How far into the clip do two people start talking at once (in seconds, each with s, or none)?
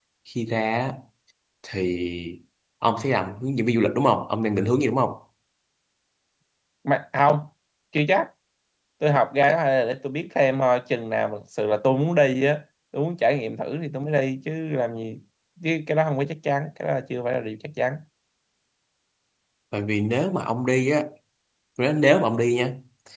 none